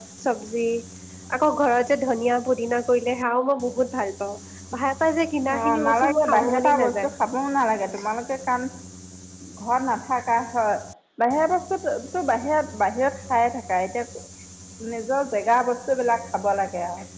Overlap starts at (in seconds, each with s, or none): 5.5 s